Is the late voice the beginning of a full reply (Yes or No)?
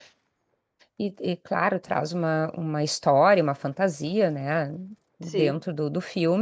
No